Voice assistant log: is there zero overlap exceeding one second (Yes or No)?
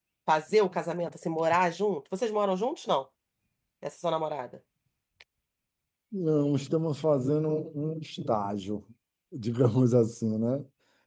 Yes